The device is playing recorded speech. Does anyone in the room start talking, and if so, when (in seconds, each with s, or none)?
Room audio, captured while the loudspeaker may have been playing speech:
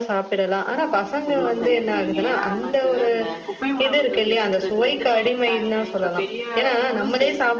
1.3 s